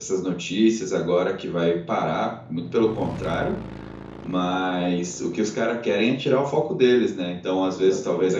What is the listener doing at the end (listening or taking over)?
listening